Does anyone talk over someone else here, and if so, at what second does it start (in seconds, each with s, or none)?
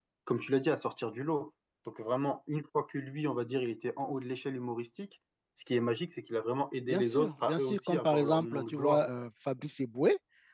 6.8 s